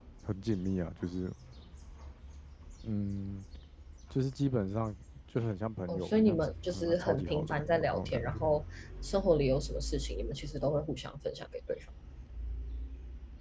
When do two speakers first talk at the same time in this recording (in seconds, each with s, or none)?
5.9 s